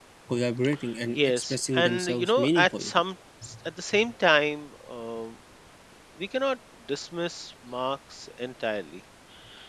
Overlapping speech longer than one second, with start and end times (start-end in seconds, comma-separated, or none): 1.1-2.9